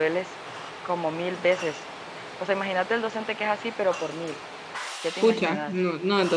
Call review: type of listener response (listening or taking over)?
taking over